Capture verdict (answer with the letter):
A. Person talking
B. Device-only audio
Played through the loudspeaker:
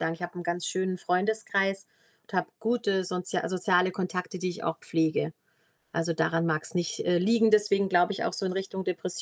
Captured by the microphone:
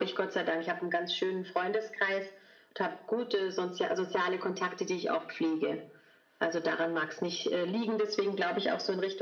B